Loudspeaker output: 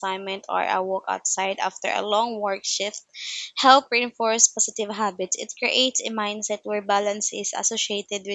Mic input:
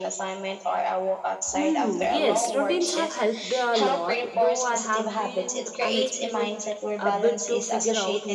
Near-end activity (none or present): present